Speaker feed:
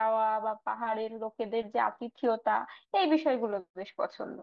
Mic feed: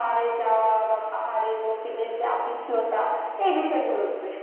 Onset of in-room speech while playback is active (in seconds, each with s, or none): none